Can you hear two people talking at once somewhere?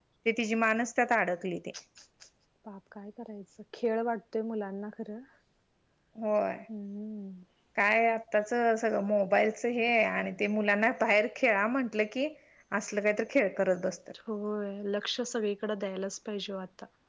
No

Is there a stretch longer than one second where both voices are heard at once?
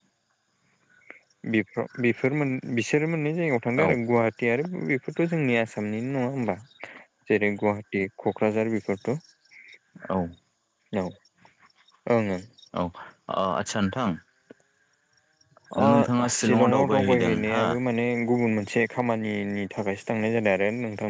Yes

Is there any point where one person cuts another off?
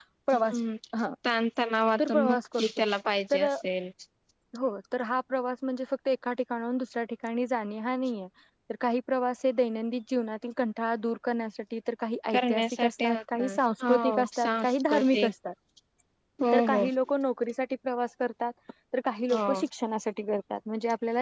Yes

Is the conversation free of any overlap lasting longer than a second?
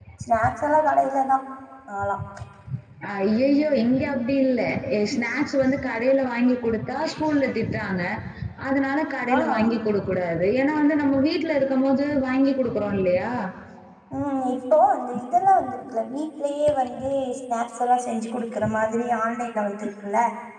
Yes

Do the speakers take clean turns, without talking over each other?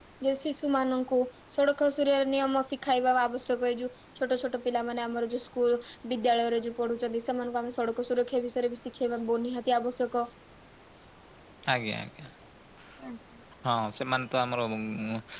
Yes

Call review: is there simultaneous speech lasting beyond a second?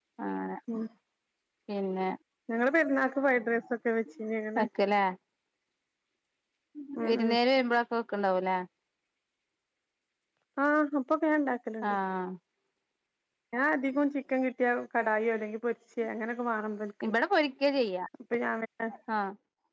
No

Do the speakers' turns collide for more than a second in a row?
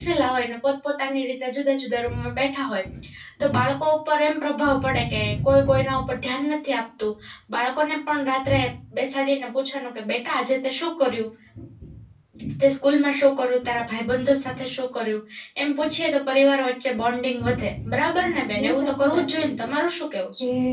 Yes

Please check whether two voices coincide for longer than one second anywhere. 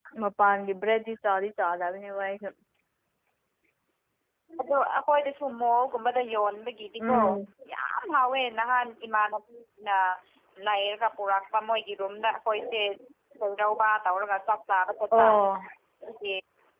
No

